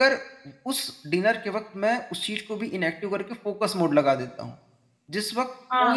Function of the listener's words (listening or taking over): taking over